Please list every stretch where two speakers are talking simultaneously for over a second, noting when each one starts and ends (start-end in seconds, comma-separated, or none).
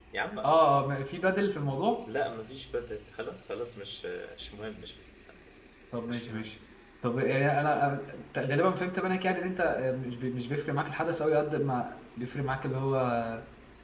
none